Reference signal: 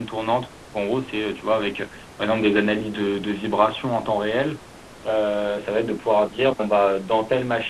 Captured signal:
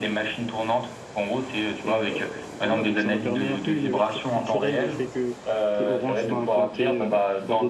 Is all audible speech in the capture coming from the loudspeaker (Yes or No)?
No